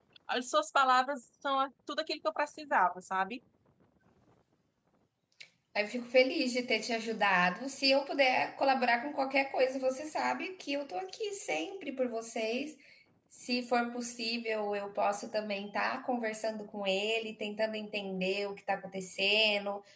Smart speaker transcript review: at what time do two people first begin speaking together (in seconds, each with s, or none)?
none